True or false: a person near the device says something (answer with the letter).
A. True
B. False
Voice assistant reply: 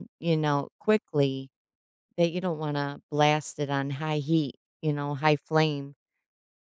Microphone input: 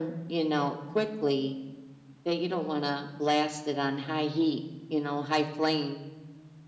B